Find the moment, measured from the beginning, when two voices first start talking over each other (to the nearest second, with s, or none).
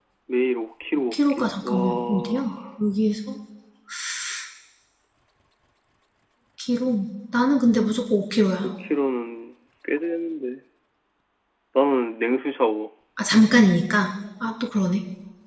1 s